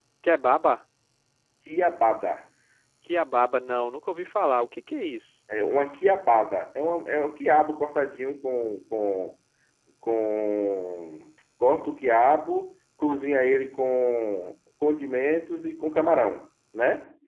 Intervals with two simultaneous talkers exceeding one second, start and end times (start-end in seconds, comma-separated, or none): none